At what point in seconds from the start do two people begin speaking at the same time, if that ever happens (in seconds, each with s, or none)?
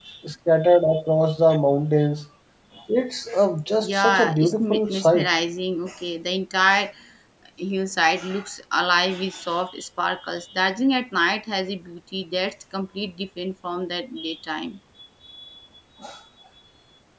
3.8 s